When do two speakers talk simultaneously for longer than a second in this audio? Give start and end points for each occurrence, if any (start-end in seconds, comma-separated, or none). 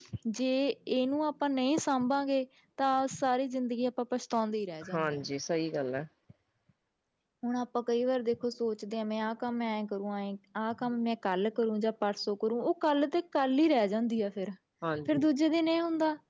none